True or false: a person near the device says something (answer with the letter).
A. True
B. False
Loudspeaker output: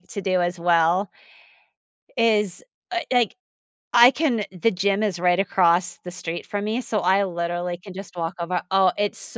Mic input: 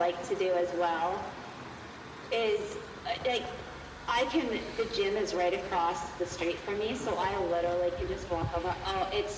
B